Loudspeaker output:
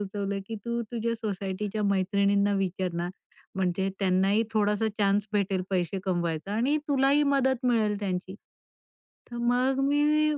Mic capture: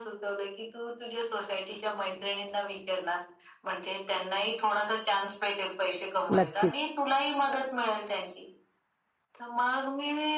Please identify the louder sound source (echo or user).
user